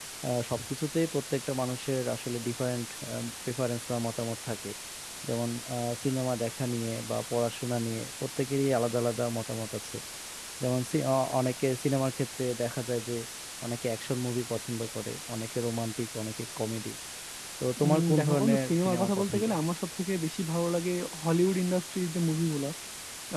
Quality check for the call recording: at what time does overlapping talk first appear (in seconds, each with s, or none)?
17.8 s